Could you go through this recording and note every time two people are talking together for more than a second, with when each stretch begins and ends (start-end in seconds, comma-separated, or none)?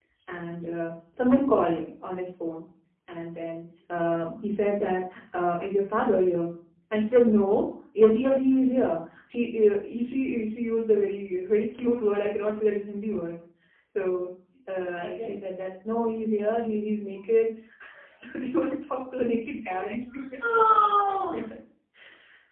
none